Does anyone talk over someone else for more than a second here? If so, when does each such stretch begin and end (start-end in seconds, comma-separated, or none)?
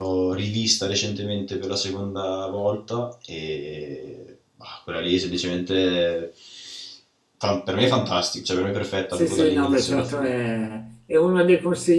9.1-10.3